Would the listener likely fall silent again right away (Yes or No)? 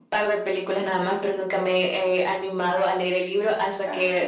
Yes